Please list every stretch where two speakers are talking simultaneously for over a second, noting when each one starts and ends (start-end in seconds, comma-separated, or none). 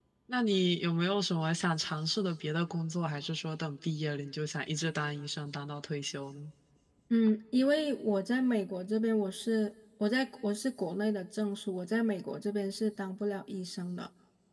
none